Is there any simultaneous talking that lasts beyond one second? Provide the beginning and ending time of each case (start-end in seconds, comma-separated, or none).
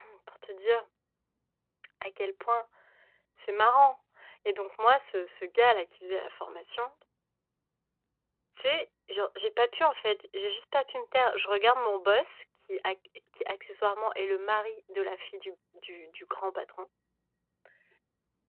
none